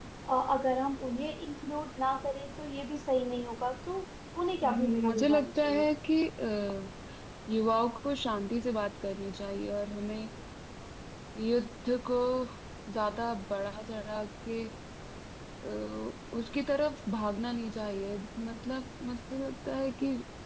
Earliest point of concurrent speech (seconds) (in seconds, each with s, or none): 4.6 s